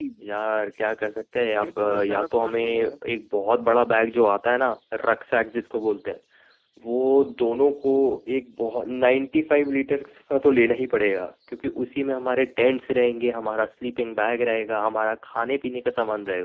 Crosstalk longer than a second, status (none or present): present